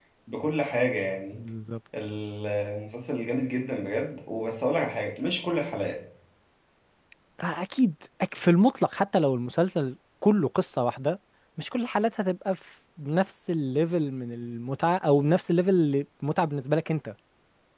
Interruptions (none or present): none